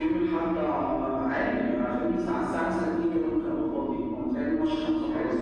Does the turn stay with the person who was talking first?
No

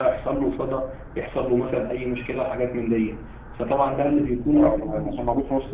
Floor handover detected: Yes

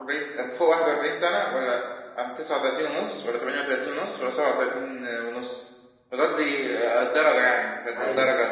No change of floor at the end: No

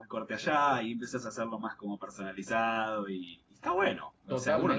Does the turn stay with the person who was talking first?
No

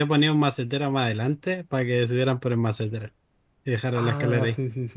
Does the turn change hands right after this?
Yes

